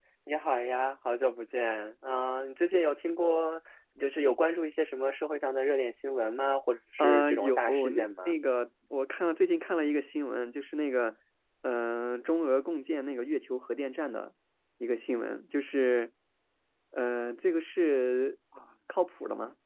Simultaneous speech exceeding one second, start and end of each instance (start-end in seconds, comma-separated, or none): 7.0-8.3